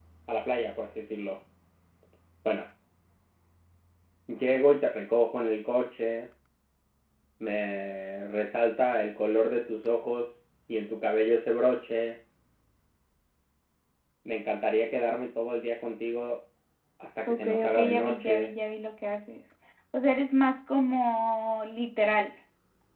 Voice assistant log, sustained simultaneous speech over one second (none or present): present